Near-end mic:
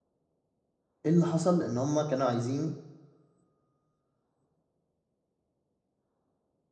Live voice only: ايه اللي حصل ان هم كانوا عايزين

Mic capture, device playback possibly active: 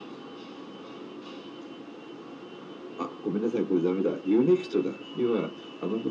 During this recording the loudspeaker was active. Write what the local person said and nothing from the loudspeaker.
none

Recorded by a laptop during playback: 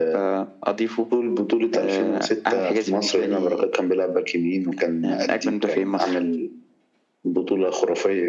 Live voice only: none

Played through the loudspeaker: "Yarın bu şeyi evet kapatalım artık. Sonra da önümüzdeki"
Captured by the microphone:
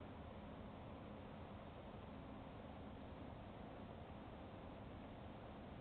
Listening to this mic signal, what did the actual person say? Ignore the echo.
none

